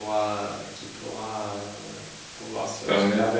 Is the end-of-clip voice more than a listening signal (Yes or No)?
No